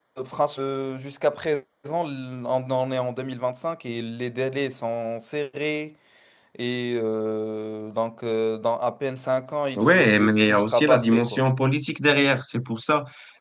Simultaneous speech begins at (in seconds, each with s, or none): 9.8 s